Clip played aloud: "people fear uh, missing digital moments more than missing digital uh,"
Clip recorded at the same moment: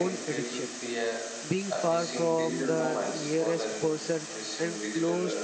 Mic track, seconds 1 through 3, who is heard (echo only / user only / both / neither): both